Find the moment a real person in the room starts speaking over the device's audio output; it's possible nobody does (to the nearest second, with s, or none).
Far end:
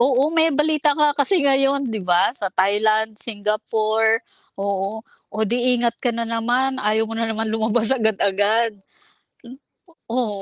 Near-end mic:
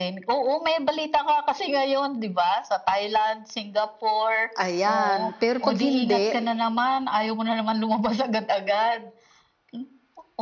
5 s